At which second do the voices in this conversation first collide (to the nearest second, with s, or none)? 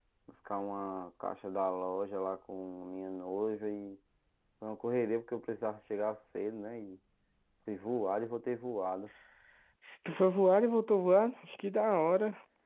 none